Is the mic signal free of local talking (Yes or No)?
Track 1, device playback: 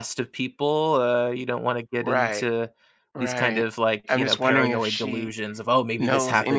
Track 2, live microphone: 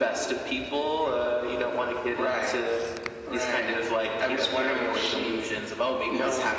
Yes